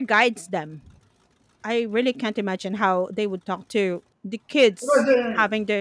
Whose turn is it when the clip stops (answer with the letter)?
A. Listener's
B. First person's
A